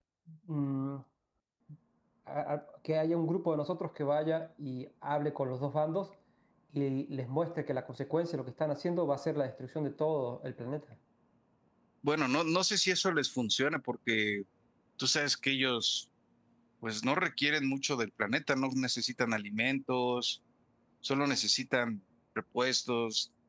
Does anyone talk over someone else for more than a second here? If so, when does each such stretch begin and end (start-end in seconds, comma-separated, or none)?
none